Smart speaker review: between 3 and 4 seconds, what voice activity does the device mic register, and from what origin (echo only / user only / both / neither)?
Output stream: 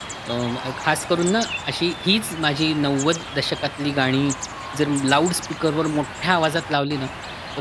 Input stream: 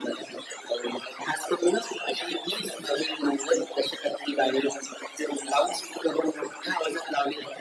echo only